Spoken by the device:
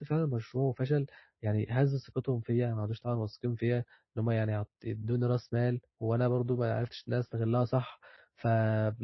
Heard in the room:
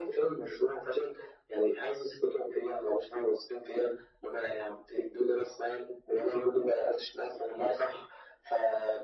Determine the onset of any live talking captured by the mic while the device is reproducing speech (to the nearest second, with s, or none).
none